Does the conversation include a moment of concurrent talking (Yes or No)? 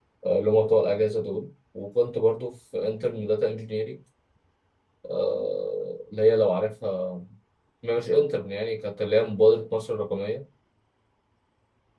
No